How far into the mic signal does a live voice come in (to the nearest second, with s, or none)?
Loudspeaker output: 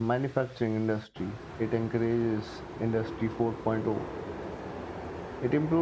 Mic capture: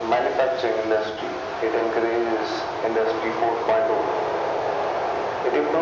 none